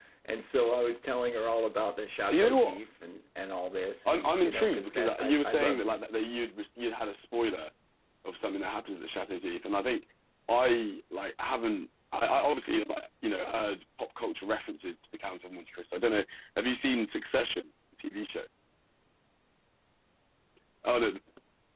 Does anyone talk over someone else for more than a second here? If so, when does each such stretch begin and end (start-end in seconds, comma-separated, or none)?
4.0-6.0